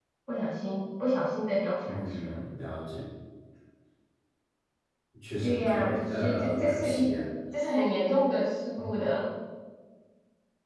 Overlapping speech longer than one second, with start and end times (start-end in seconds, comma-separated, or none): 5.4-7.1